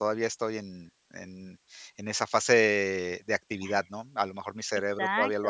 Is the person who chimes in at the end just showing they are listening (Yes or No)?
No